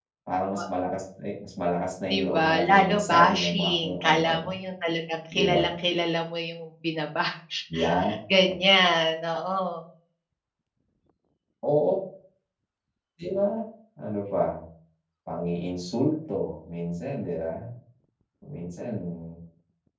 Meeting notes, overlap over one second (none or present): present